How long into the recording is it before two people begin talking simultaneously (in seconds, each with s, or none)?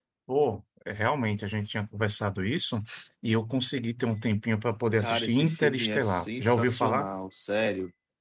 5.0 s